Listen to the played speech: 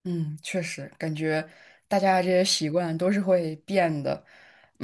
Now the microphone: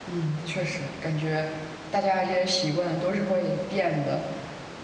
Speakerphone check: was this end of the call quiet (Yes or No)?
Yes